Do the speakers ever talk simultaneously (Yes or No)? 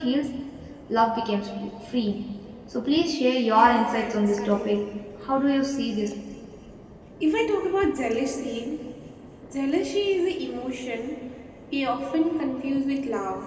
Yes